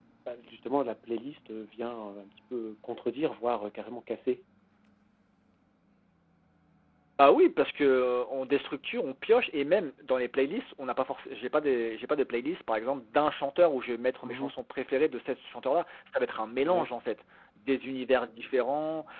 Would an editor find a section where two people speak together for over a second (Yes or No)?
No